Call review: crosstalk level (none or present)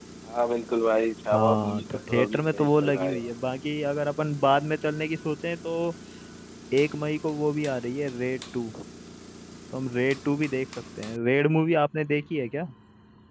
present